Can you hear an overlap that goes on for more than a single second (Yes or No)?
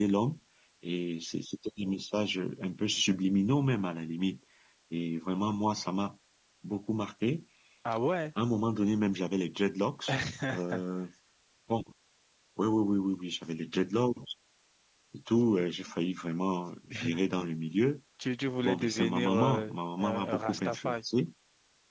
Yes